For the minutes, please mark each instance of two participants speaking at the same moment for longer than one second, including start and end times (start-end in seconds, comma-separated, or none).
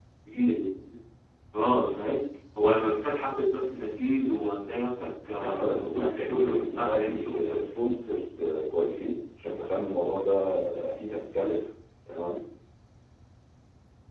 5.4-7.7